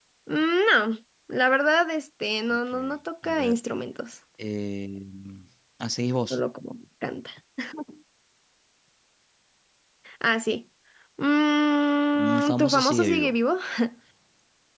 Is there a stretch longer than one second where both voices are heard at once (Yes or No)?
Yes